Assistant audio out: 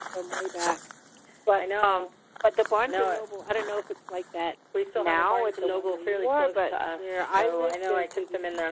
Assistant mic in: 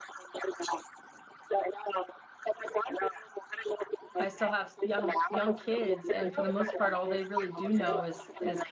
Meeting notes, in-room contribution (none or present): present